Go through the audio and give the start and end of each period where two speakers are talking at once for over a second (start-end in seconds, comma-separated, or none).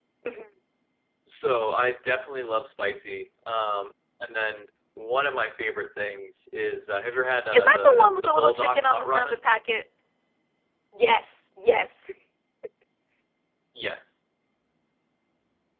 7.5-9.4